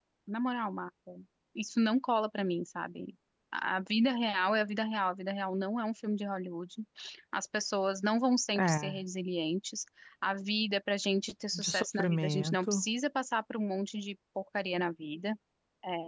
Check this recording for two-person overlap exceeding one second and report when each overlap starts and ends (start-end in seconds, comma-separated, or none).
11.5-12.8